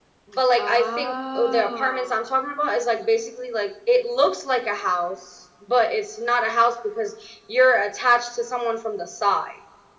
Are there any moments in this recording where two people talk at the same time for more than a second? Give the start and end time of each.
0.6-2.2

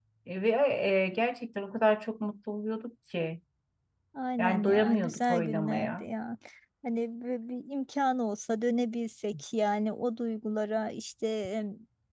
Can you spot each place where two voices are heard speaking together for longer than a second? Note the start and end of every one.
4.4-6.0

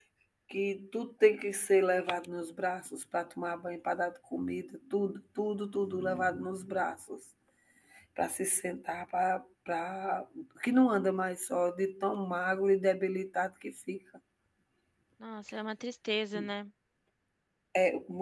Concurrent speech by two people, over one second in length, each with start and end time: none

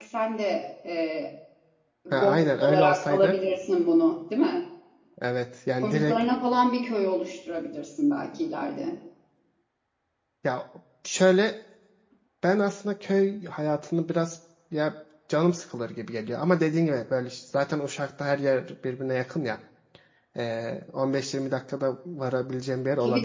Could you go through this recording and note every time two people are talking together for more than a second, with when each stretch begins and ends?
2.1-3.3

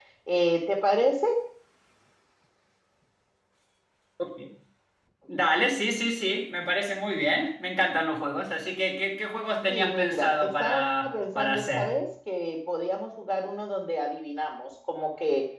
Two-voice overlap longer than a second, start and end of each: 9.7-12.0

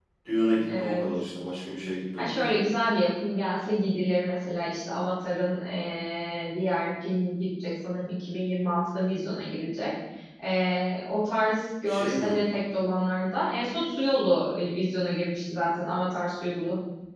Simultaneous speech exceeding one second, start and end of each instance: none

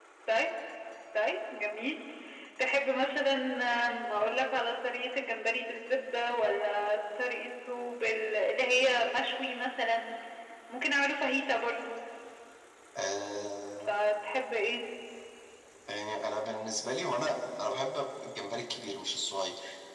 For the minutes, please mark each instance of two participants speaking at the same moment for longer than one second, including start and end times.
none

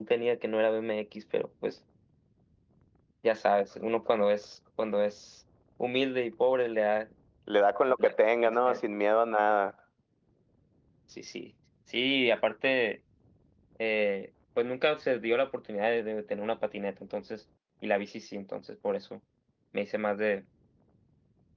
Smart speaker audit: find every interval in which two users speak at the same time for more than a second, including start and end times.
none

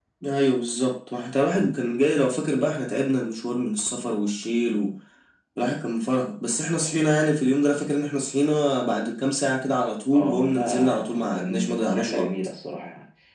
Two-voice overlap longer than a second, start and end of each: 10.1-12.3

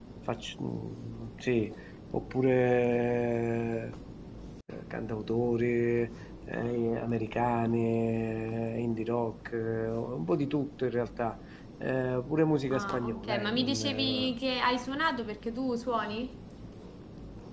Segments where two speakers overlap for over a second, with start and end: 12.7-14.3

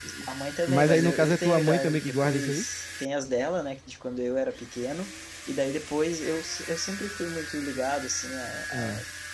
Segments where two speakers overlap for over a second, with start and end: 0.7-2.6

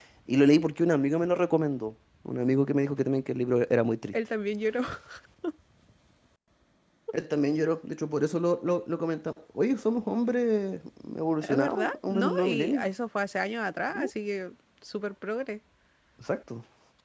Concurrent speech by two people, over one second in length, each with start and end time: 11.4-12.8

